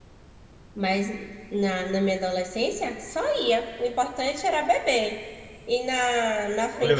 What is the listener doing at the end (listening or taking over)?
taking over